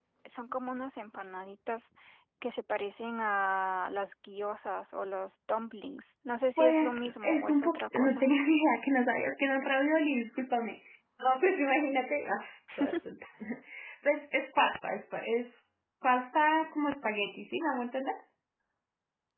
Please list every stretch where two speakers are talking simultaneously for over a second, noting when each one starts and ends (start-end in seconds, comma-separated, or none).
6.6-8.2